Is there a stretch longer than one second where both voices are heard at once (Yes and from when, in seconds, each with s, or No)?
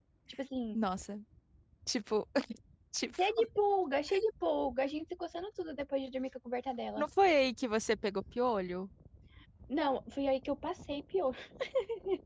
No